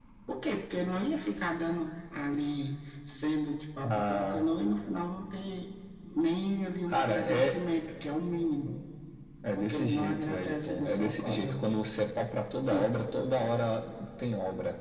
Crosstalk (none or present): present